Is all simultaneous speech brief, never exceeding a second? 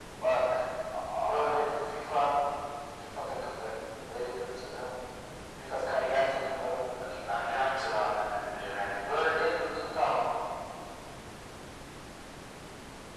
Yes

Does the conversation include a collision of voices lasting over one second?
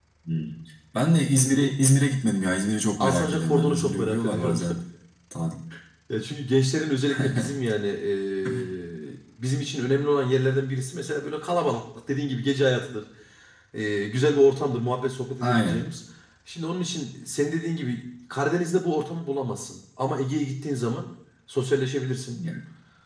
Yes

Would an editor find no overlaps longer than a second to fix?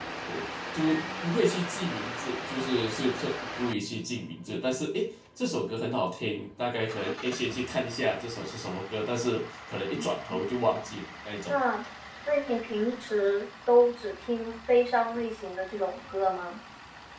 Yes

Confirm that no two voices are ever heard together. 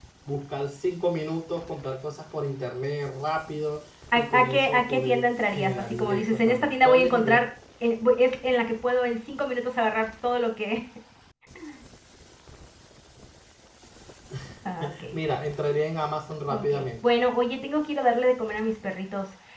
No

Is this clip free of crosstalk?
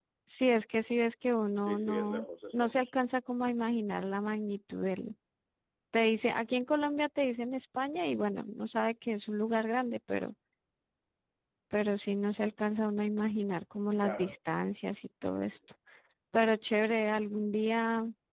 No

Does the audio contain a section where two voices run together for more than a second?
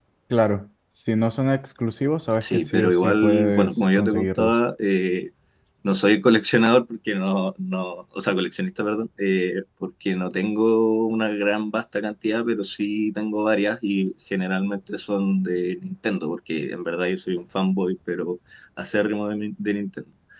Yes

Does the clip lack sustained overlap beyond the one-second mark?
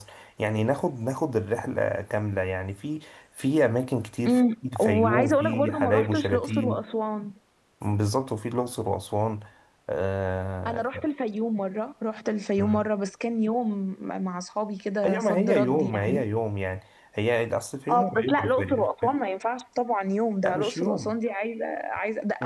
No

